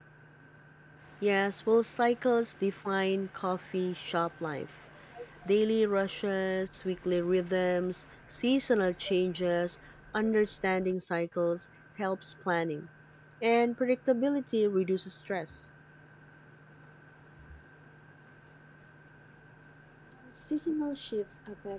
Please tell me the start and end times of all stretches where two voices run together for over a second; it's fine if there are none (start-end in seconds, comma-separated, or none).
none